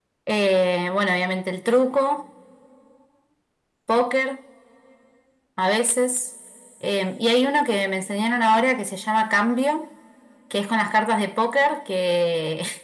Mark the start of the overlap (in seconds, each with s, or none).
none